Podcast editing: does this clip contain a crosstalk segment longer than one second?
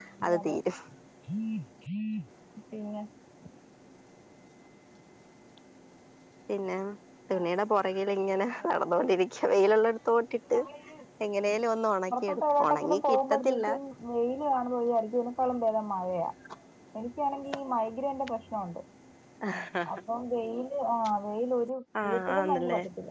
Yes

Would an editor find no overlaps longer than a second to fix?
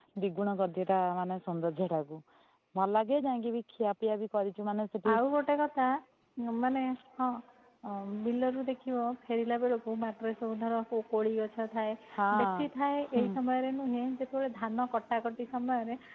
Yes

